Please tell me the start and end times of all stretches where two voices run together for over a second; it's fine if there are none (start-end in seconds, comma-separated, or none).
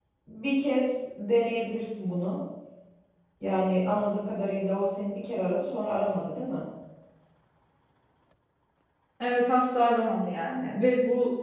none